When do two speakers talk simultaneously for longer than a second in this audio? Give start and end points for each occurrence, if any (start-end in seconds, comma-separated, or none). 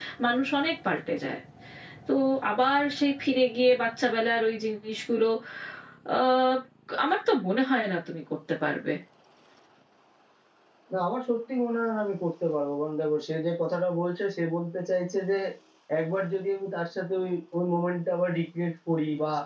none